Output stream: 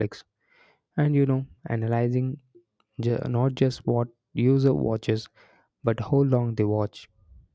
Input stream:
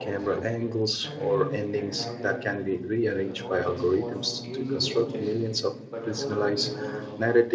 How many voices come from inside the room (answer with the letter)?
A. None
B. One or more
B